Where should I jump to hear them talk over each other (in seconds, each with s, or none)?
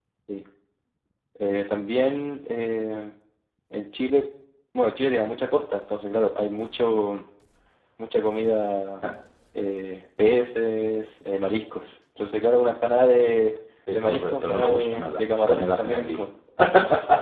13.9 s